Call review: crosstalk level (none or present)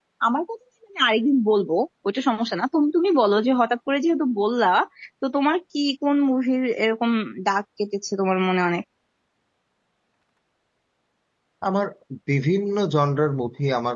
none